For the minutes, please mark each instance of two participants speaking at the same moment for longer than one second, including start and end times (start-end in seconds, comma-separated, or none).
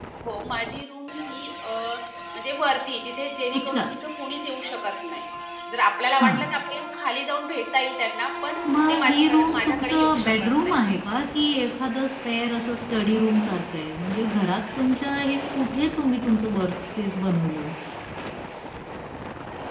8.9-10.8